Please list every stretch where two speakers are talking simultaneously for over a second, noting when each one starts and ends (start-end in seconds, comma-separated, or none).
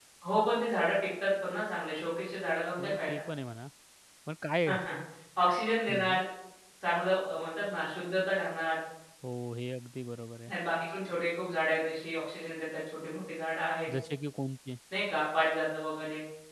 none